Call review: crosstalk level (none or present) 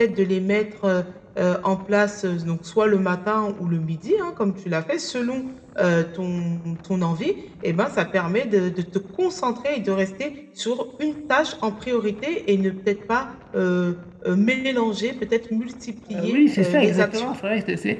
present